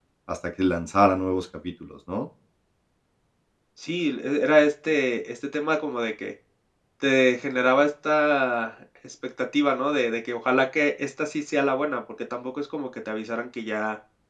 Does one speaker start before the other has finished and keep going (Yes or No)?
No